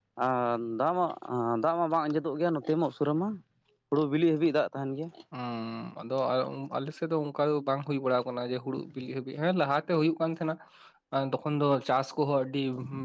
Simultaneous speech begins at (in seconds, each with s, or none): none